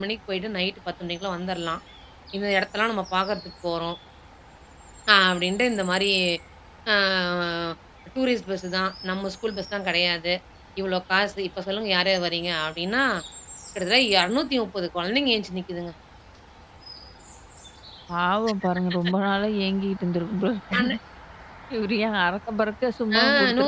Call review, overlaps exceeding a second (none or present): none